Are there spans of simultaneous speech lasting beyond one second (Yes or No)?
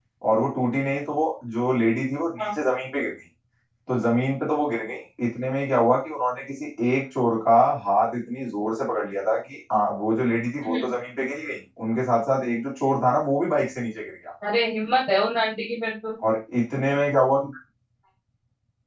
No